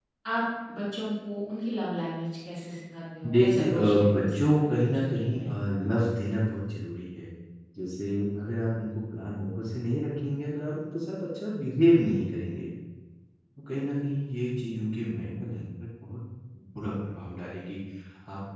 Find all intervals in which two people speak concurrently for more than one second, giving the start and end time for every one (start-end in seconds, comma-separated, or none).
3.2-5.6